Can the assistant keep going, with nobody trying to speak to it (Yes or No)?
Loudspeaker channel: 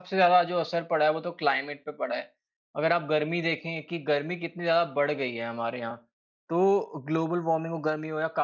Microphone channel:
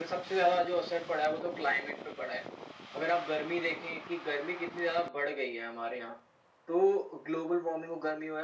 Yes